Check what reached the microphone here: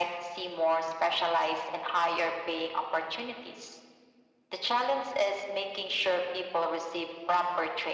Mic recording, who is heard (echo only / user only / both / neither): echo only